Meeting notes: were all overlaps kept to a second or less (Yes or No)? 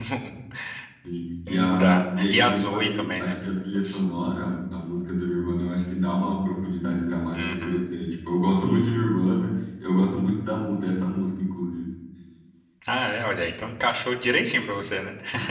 No